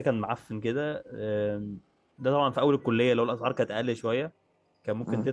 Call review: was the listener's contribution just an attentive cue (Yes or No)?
Yes